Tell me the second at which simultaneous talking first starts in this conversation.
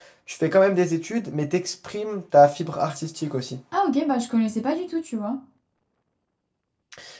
none

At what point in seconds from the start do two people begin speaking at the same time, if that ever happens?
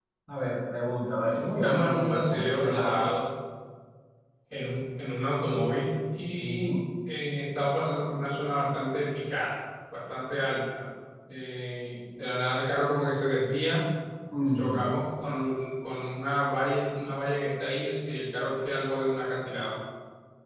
1.3 s

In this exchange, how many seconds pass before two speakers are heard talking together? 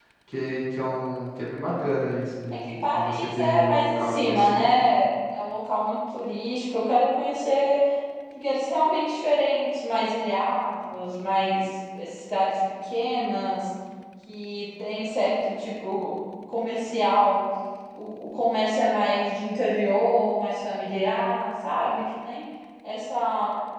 2.5 s

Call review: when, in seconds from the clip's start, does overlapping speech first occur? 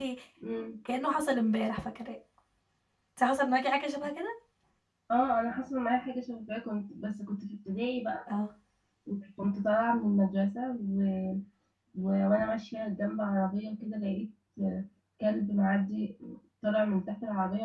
none

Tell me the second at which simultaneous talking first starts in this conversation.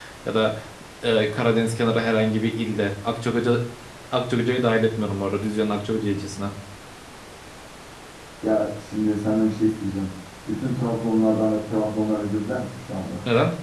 none

